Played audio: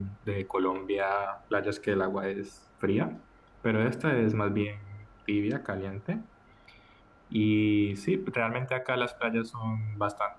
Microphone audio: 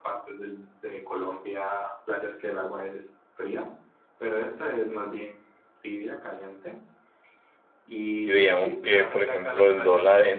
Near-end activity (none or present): present